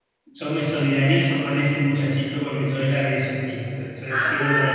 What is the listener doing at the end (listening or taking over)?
taking over